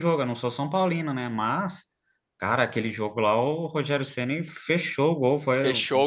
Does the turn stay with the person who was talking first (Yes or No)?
No